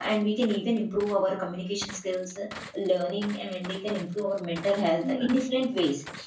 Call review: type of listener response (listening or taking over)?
listening